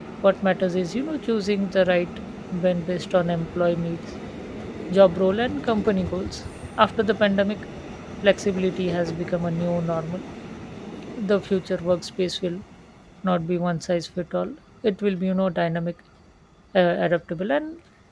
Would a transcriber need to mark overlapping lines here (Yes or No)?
No